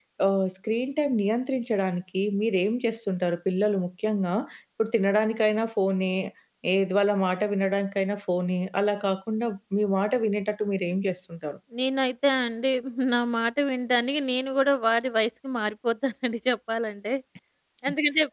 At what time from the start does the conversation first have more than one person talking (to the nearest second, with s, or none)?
none